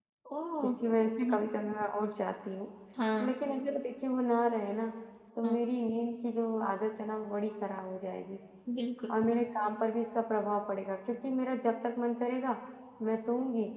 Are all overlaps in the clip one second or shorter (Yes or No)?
Yes